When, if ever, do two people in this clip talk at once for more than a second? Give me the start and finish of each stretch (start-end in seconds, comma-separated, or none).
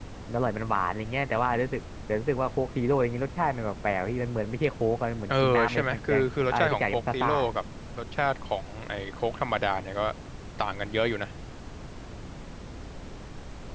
5.3-7.3